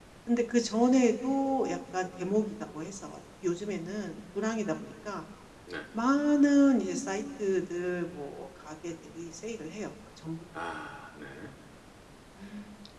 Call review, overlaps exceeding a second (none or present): none